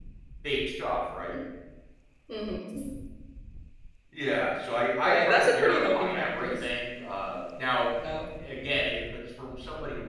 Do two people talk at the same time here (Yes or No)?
Yes